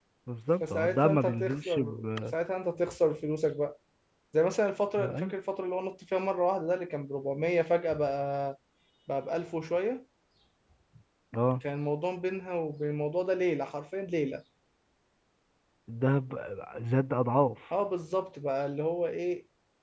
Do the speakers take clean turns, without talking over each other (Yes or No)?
No